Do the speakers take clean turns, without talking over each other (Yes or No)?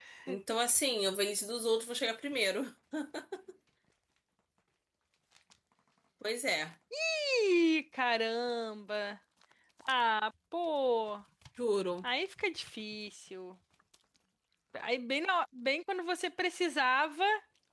Yes